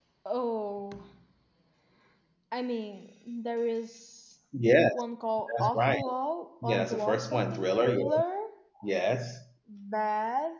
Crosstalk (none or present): present